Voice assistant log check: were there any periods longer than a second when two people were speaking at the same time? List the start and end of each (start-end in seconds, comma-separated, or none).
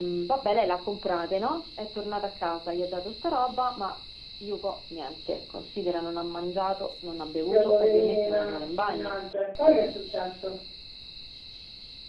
7.5-9.2